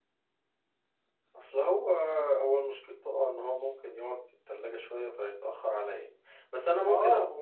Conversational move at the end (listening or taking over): taking over